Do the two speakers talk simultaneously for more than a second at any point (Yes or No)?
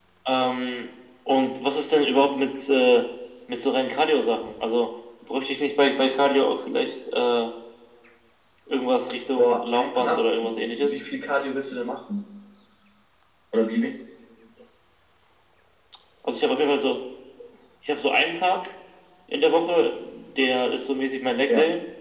Yes